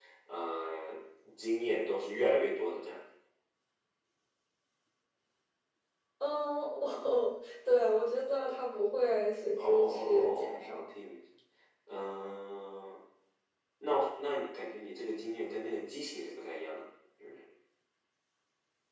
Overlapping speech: Yes, from 9.6 s

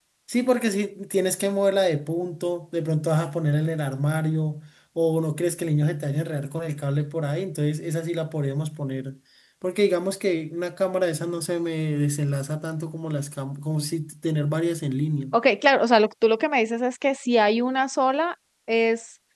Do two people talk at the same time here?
No

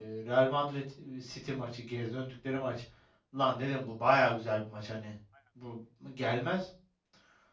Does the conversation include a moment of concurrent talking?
No

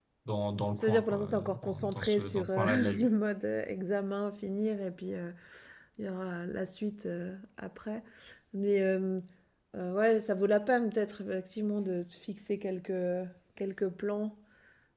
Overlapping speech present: Yes, from 0.8 s

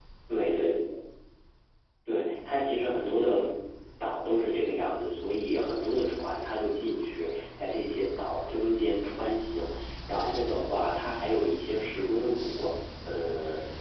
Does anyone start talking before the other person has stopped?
No

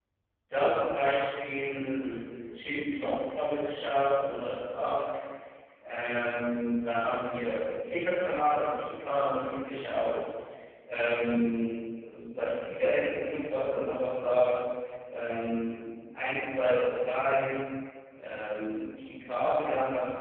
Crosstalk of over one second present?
No

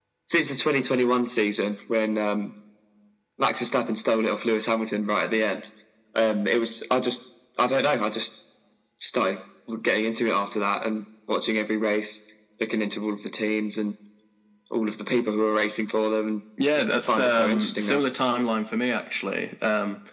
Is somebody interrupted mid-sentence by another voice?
Yes, from 16.6 s

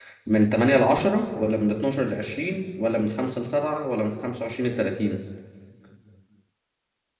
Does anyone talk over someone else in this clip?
No

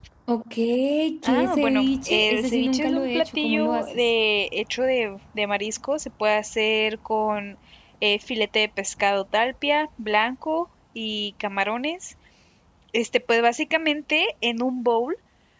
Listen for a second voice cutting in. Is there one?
Yes, from 1.2 s

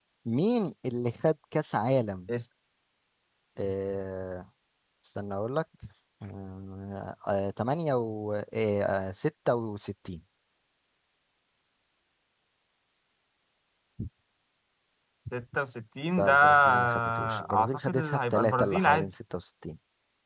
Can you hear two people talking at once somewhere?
Yes, from 16.2 s

